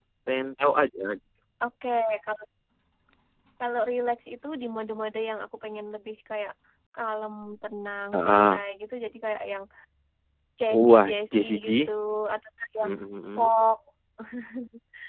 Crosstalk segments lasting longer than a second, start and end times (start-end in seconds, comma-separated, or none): 10.7-11.9